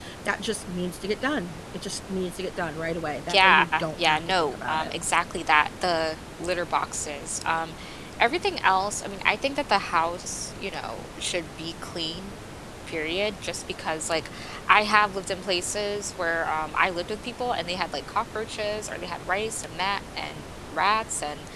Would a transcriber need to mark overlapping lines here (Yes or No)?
Yes